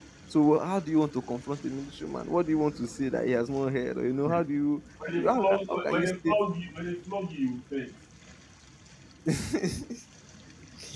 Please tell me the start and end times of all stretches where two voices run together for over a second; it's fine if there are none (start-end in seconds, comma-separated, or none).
5.1-6.4